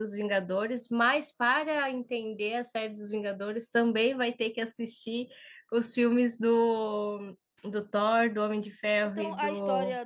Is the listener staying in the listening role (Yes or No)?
No